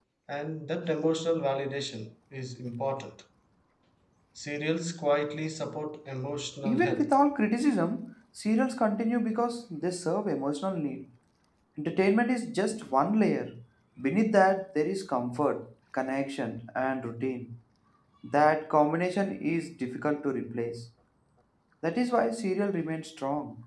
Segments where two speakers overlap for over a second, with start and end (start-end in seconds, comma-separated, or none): none